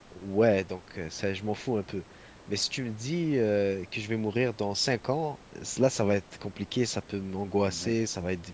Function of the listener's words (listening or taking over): listening